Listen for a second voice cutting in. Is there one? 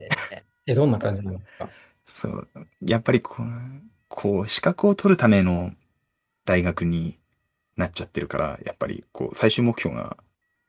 No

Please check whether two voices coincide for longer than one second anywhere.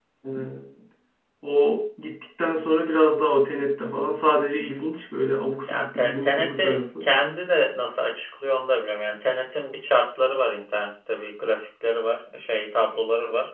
Yes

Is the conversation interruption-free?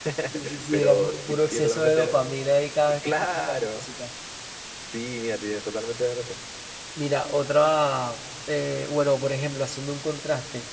No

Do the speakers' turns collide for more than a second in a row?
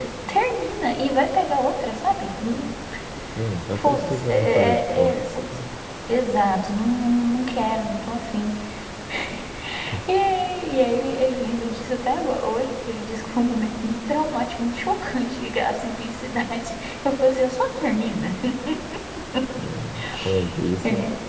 Yes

